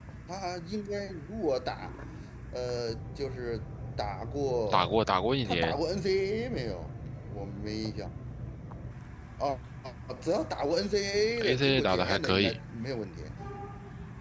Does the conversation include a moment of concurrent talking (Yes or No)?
Yes